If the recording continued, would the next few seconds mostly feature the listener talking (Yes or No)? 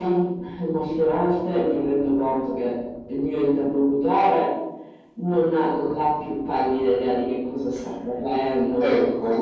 Yes